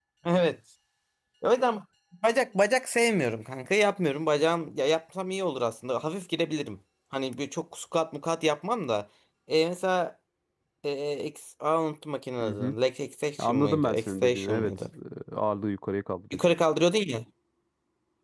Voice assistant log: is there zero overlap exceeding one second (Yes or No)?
No